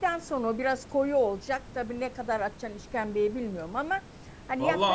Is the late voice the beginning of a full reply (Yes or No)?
Yes